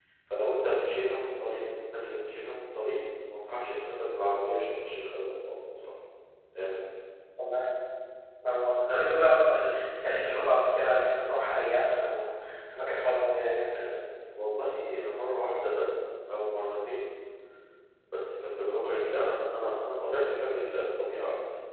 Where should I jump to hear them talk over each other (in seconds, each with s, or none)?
none